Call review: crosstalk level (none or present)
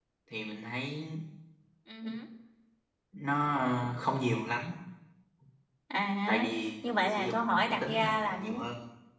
present